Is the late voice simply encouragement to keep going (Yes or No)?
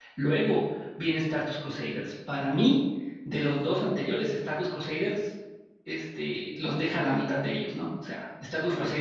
Yes